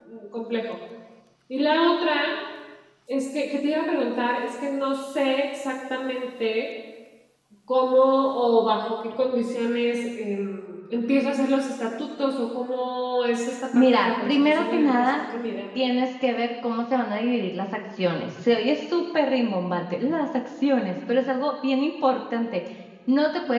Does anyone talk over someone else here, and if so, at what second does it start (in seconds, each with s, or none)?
13.7 s